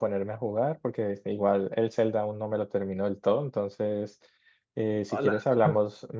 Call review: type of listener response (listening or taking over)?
listening